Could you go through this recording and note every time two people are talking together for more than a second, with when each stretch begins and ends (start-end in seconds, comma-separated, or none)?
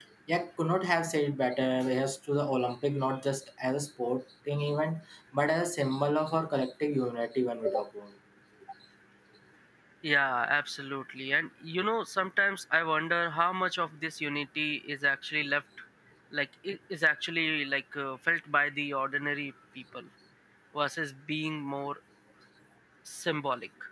none